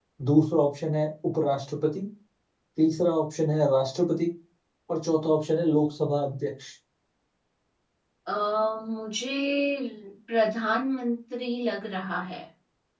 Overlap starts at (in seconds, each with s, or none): none